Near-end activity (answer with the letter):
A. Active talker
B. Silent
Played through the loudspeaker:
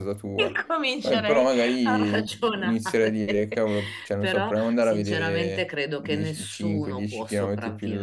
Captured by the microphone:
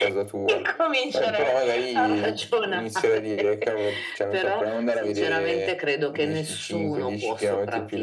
B